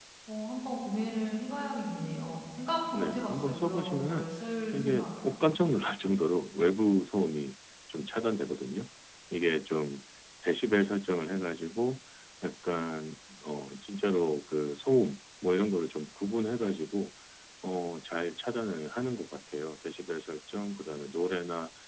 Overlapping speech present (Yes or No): Yes